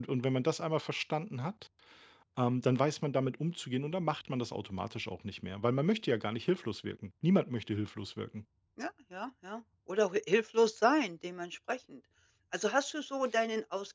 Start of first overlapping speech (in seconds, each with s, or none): none